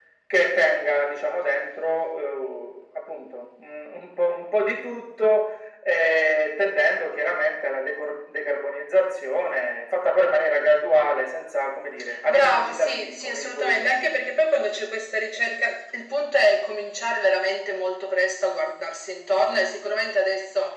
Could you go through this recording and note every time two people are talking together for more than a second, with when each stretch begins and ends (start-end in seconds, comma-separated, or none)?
12.3-13.9